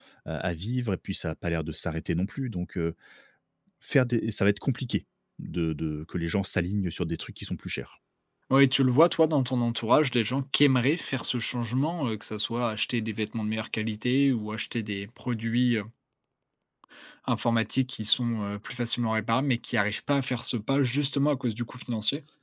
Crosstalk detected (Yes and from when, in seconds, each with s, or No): No